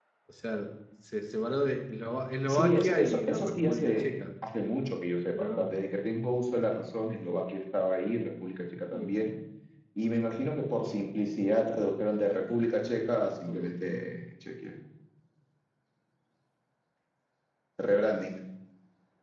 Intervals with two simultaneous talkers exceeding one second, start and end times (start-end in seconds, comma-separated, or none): 2.5-4.1